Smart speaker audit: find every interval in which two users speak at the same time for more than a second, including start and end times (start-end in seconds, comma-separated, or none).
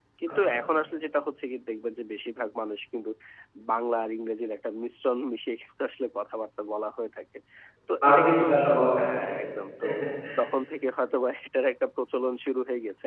none